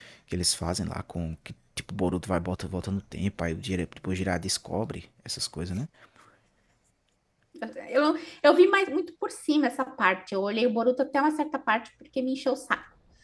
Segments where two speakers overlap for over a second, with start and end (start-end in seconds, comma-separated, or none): none